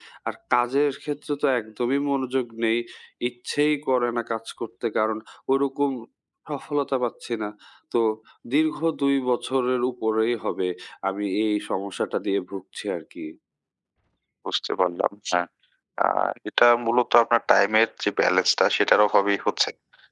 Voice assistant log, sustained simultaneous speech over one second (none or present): none